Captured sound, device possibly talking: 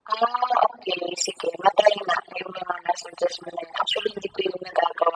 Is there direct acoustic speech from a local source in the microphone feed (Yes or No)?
No